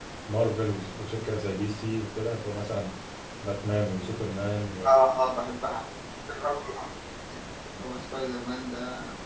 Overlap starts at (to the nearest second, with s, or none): none